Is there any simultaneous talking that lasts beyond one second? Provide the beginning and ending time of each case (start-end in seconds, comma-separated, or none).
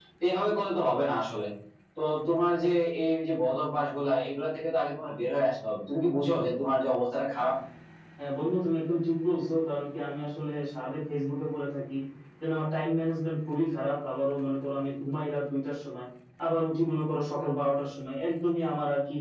none